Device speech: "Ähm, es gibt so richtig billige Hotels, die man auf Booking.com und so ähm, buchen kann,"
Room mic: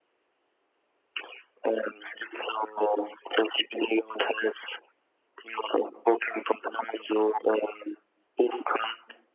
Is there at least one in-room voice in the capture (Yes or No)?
No